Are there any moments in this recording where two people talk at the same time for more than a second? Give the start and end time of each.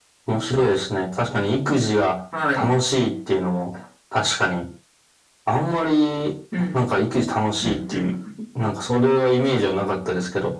none

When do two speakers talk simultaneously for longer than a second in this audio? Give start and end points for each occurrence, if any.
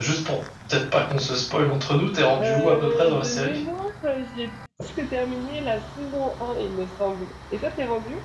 2.4-3.6

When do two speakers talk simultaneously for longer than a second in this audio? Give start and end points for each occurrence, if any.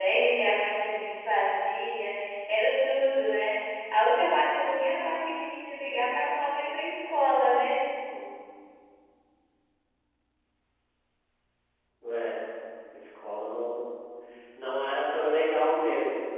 none

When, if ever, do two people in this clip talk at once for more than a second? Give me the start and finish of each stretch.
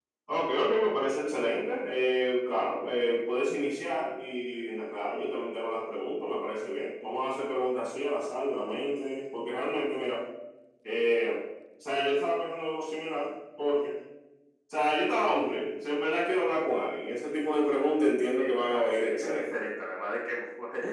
18.4-19.7

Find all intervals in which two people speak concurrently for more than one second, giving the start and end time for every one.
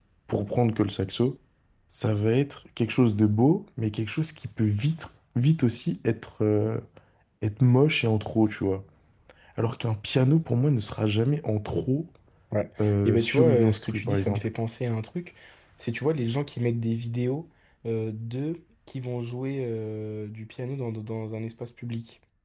13.1-14.4

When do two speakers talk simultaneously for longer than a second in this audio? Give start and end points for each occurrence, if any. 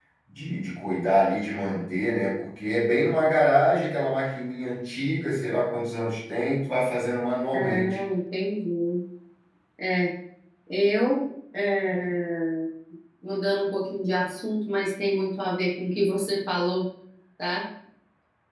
none

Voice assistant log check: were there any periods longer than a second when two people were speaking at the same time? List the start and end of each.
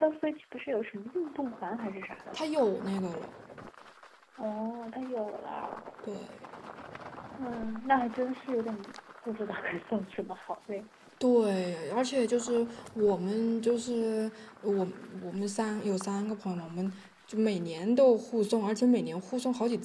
none

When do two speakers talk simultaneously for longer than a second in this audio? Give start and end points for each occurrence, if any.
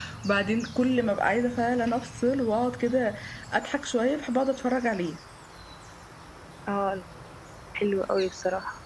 none

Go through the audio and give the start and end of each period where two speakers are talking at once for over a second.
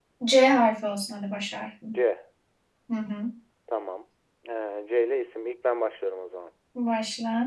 none

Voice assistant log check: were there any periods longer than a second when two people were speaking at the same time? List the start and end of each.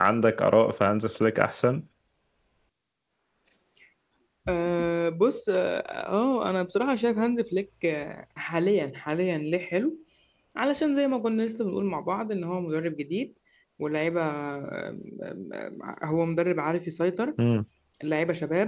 none

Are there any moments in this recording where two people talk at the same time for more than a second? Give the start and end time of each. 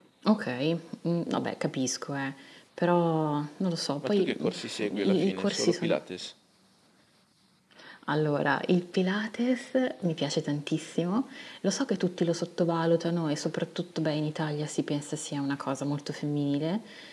4.0-6.0

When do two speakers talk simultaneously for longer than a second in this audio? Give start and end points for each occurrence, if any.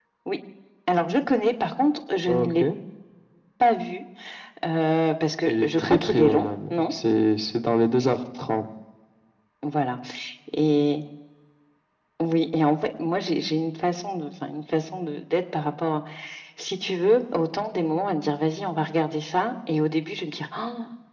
5.5-6.9

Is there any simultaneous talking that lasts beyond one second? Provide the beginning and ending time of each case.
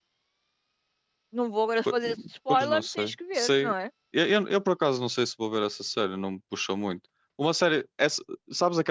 2.5-3.7

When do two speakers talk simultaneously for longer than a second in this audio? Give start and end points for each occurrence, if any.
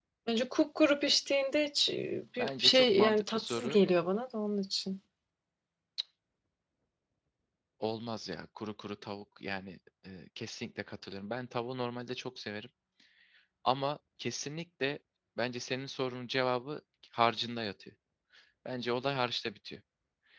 2.4-3.8

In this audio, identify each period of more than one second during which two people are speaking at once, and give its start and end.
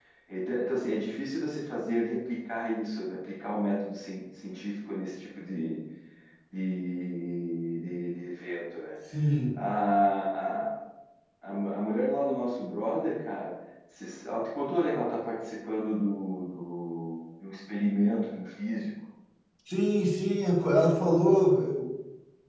none

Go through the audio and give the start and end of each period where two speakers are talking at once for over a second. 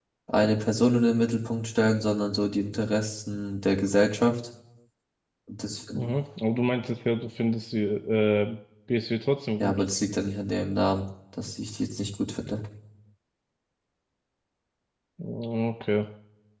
none

